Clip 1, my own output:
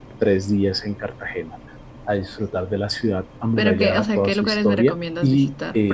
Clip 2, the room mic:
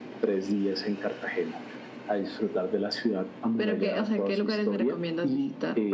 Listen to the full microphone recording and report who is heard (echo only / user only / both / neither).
echo only